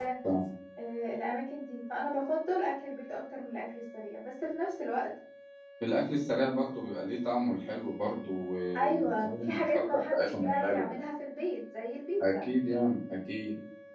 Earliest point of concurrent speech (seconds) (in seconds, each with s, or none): 8.7 s